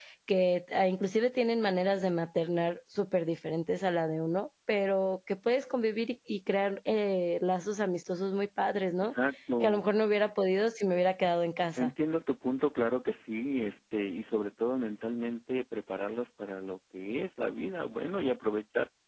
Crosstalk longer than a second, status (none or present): none